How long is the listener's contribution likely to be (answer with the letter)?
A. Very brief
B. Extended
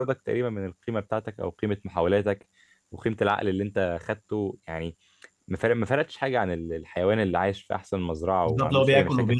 B